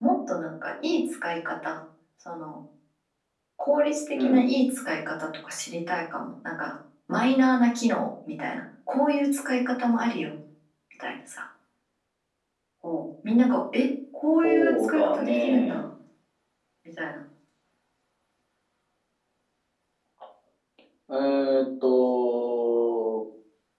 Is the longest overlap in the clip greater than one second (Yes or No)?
Yes